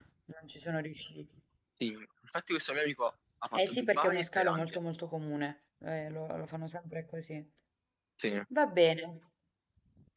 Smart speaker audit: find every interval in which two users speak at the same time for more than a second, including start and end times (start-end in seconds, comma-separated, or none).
3.5-4.8